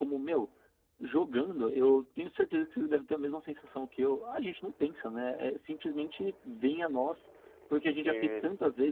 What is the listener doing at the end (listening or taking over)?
listening